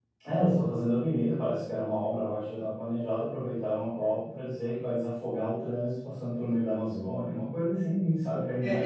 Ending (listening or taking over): taking over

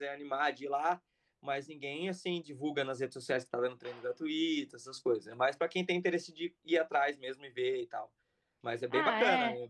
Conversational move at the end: taking over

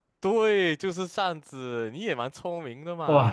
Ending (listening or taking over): taking over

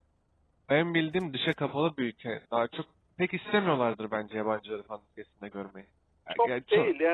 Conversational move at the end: taking over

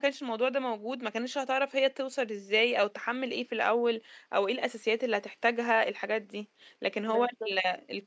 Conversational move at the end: listening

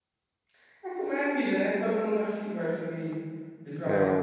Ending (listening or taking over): taking over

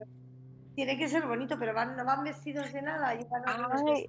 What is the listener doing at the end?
taking over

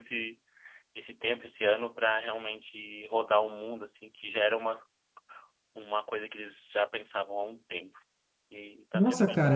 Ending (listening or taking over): taking over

